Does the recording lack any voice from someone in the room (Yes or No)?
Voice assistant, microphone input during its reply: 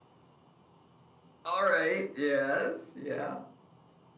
No